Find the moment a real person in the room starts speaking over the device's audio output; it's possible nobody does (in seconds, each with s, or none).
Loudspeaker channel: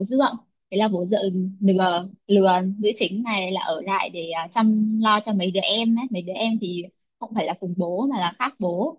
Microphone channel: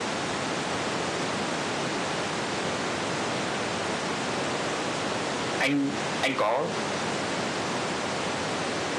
5.6 s